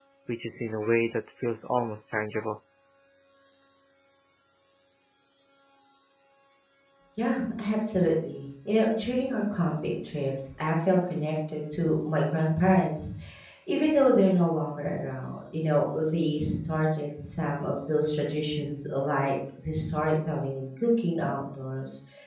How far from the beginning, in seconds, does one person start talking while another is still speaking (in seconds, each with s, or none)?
none